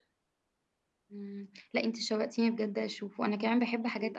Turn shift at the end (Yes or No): No